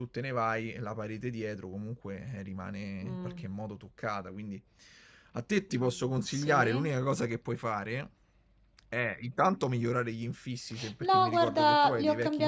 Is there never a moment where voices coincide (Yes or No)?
No